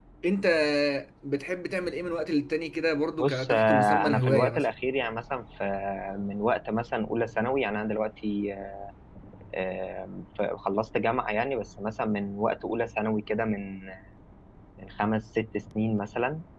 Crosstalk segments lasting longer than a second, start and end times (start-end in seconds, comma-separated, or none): 3.2-4.7